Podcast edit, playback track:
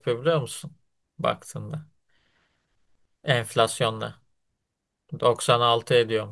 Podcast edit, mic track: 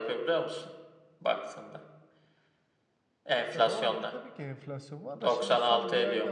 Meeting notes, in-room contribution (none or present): present